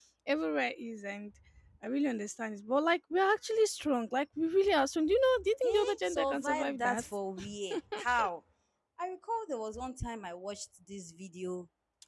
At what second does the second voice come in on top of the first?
6 s

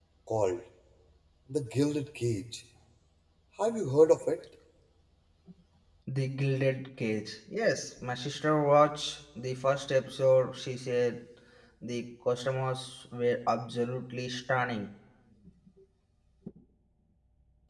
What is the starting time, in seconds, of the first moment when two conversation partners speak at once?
none

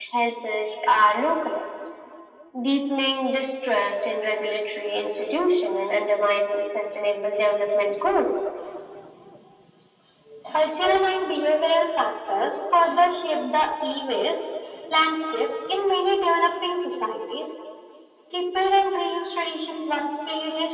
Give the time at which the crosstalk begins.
none

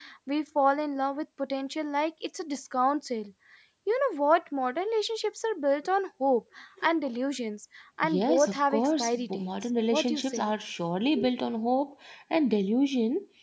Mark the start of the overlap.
8 s

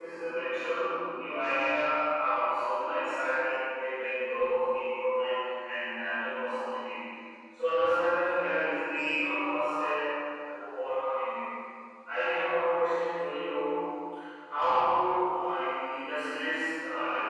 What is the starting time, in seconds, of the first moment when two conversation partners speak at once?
none

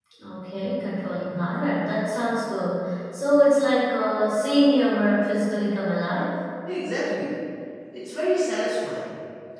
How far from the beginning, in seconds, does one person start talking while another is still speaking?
none

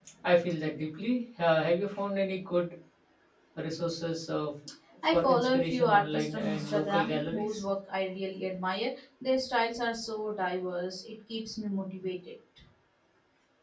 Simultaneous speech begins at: 5 s

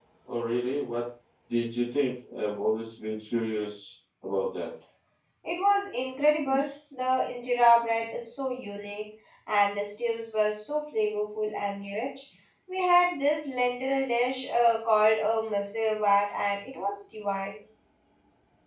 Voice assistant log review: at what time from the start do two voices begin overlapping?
none

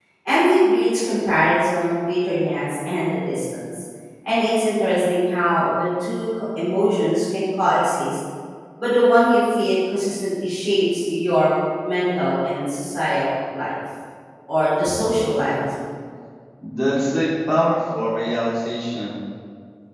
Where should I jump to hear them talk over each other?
none

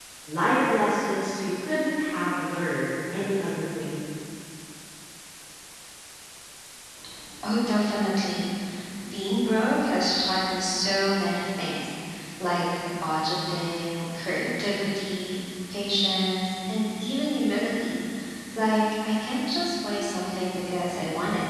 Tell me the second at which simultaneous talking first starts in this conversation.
none

